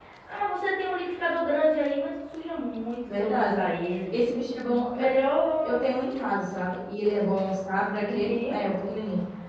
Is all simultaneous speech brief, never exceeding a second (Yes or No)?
Yes